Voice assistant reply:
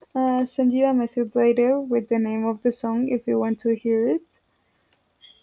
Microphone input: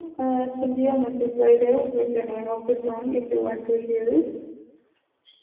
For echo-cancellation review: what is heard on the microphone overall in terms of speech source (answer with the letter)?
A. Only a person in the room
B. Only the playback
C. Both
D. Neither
B